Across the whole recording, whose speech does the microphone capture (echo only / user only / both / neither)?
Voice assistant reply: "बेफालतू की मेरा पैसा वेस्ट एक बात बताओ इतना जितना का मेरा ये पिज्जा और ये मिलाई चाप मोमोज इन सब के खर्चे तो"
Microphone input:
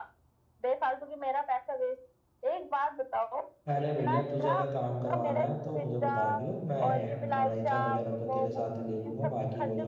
both